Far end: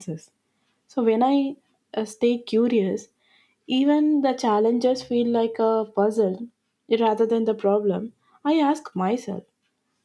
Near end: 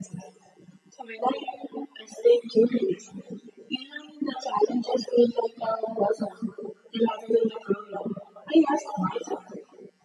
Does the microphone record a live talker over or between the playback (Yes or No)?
No